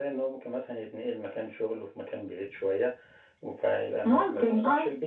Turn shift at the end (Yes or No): No